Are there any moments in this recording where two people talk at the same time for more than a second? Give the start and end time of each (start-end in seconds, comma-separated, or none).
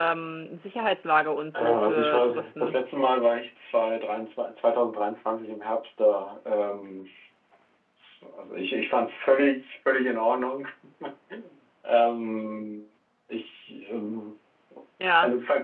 1.5-2.8